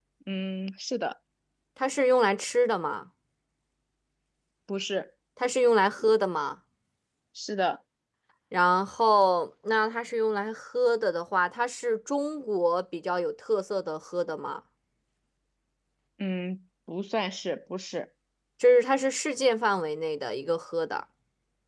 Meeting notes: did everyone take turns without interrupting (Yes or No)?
Yes